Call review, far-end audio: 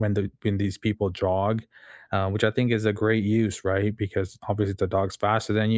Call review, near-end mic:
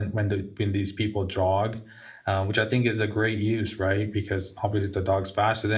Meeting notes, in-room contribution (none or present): none